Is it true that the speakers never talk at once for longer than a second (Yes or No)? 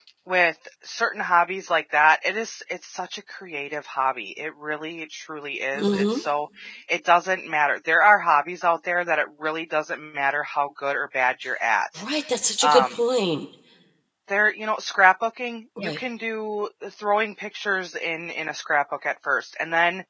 Yes